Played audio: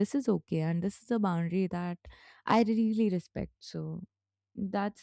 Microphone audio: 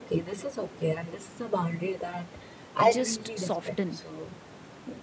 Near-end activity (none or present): present